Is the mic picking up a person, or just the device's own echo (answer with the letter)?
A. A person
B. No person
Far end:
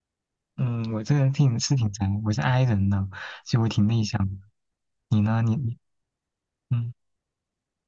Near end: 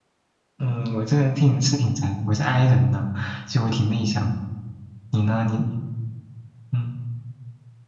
B